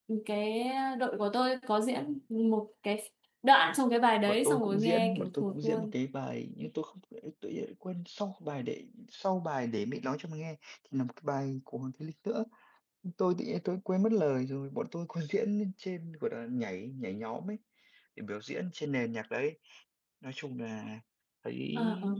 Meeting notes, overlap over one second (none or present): present